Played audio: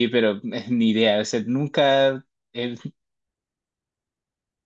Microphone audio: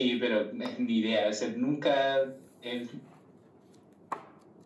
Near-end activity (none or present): none